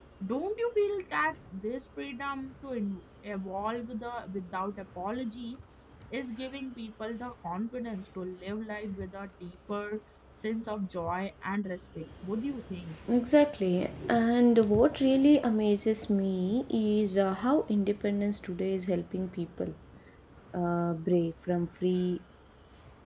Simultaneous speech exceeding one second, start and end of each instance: none

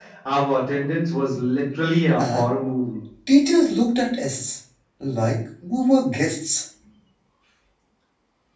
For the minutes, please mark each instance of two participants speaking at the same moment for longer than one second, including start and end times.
none

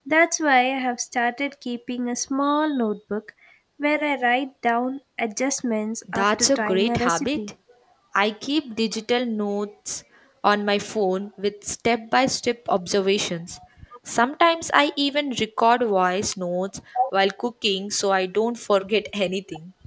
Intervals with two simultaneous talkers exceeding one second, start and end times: 6.1-7.4

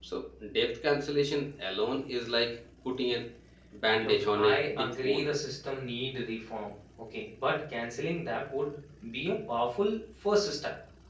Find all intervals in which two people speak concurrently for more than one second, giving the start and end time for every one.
4.0-5.3

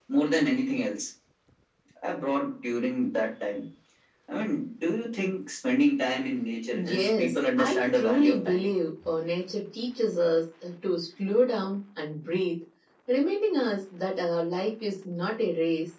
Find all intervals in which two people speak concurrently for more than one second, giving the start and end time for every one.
6.7-8.7

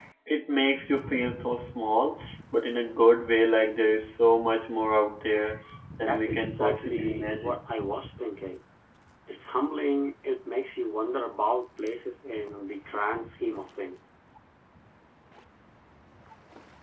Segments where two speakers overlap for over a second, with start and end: 6.0-7.6

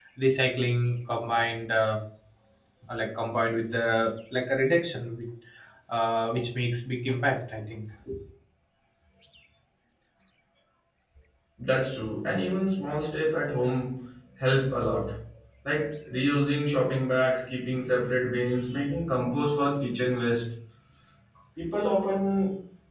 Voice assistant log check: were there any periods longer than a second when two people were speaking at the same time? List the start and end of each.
none

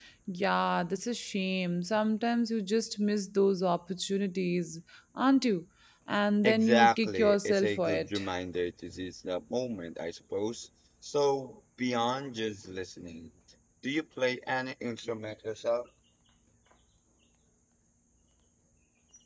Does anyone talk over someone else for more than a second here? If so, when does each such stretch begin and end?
6.4-8.2

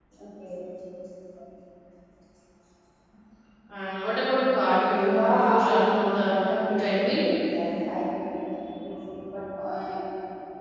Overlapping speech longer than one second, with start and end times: 4.9-6.4

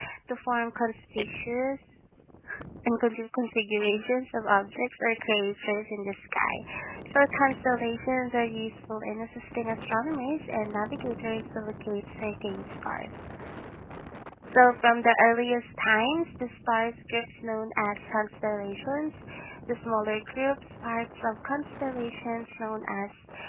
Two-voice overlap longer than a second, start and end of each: none

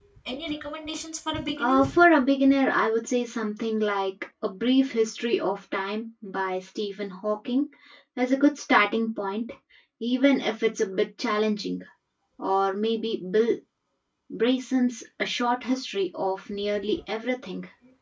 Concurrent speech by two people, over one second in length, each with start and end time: none

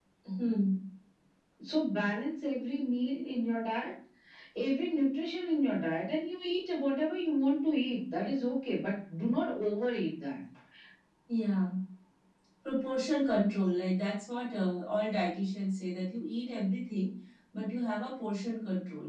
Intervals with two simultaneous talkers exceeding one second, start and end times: none

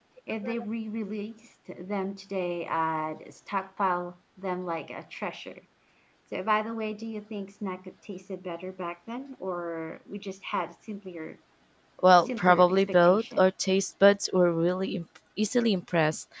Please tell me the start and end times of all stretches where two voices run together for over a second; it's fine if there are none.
12.2-13.4

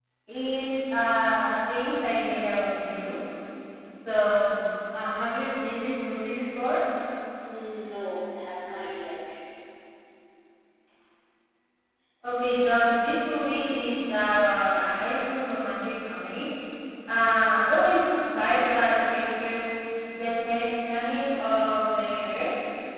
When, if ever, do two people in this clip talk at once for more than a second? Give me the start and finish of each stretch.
none

